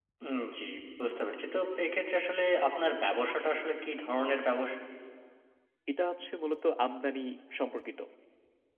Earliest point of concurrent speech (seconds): none

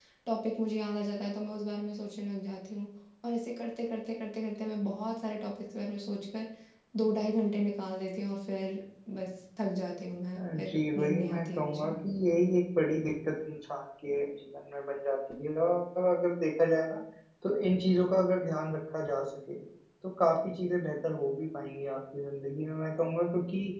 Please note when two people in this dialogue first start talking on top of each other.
10.4 s

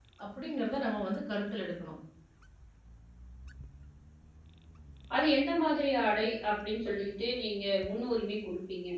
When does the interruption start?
none

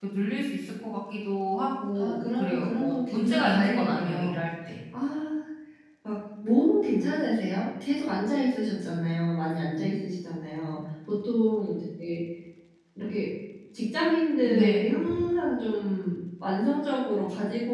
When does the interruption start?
2.0 s

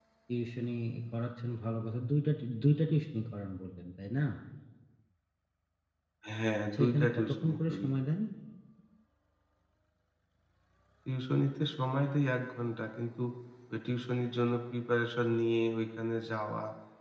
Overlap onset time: 6.7 s

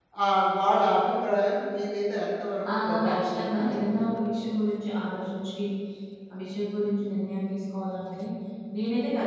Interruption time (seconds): 2.6 s

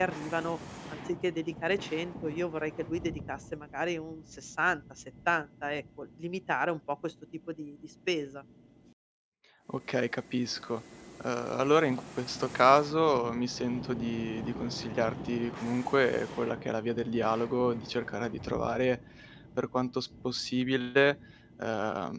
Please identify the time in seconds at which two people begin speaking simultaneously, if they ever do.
none

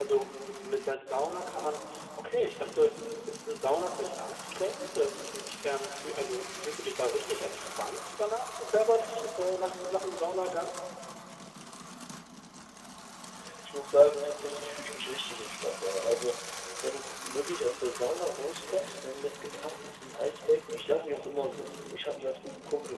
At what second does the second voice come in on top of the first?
none

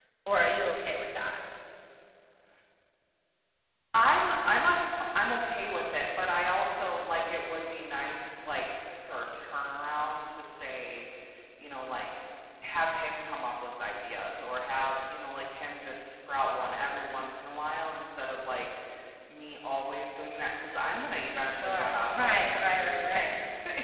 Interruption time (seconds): 21.6 s

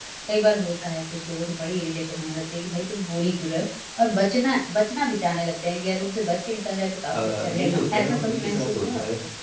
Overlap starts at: 7.1 s

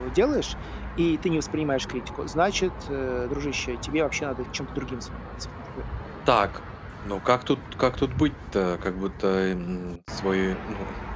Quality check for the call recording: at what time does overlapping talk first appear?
none

